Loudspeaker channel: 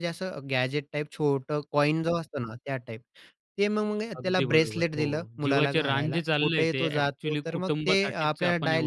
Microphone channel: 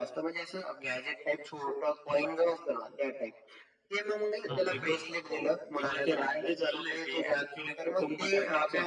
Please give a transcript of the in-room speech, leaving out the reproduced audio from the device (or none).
हां, हां.